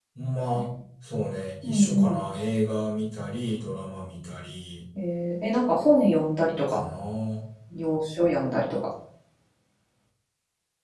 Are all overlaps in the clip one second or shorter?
Yes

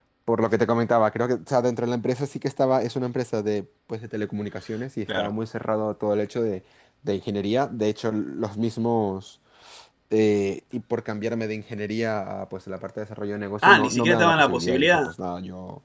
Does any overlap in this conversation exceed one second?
Yes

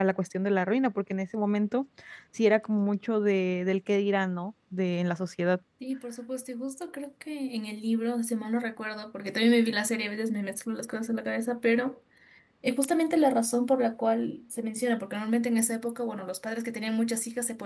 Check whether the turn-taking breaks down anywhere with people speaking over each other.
No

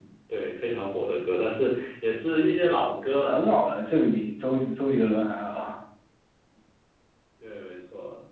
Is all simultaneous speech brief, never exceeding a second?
Yes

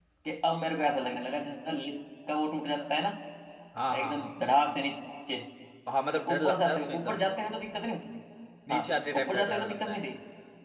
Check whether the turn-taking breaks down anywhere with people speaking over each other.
Yes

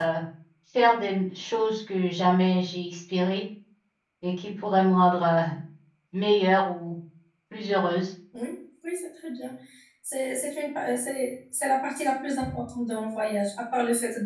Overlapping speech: No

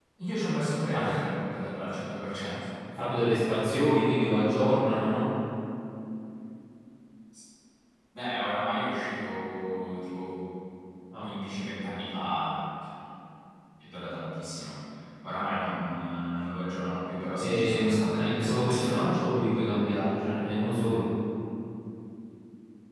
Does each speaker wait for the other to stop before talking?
No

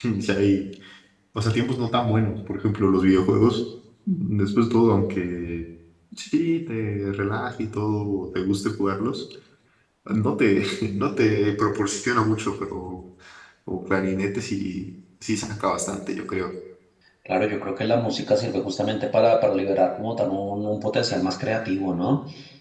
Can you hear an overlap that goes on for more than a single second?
No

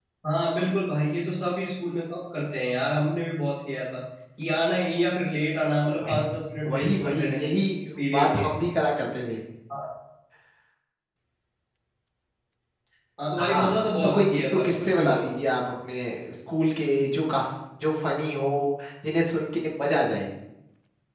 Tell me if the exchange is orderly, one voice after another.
No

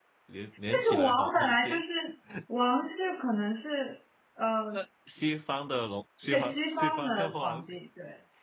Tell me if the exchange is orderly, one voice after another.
No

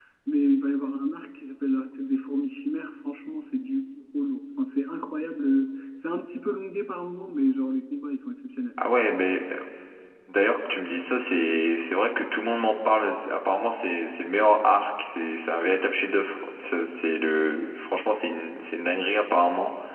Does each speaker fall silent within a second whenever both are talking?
Yes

